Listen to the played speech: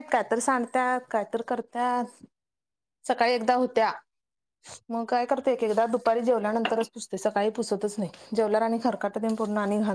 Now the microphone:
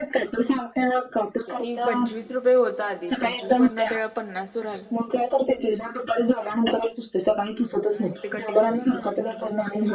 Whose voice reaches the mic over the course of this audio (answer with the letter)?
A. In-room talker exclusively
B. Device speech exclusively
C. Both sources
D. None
C